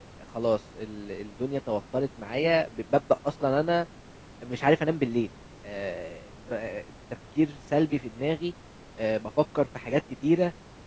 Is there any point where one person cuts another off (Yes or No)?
No